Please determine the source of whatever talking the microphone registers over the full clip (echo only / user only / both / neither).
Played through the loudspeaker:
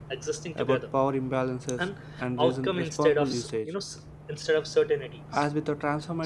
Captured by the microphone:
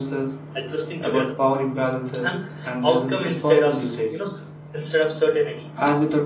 echo only